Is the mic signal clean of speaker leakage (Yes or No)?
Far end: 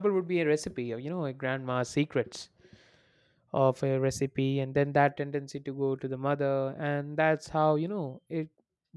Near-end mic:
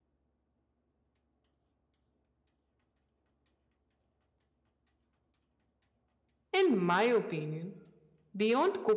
Yes